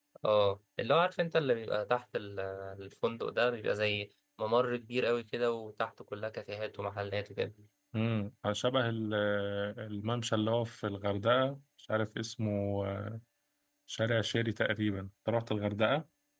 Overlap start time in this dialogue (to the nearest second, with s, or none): none